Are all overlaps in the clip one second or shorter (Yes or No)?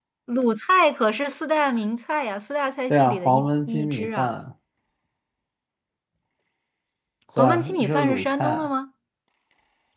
No